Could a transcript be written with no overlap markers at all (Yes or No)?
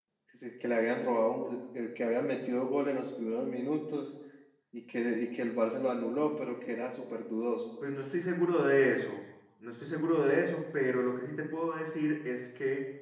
Yes